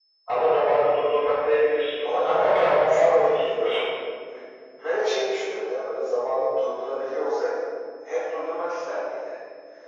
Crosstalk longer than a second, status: present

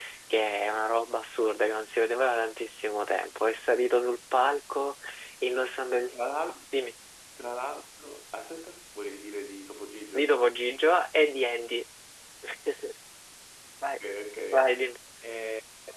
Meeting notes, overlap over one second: none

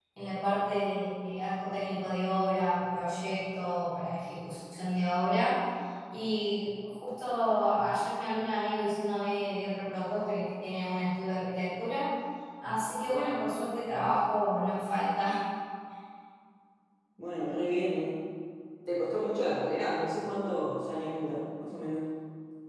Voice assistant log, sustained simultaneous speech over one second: none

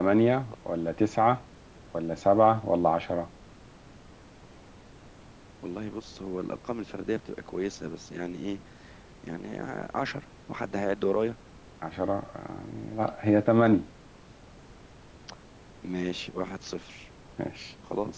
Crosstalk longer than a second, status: none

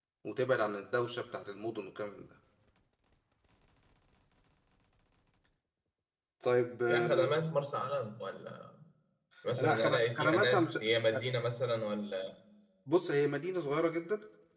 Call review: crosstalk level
present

